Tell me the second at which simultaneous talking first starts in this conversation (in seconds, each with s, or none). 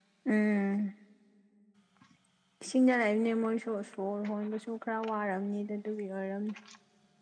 none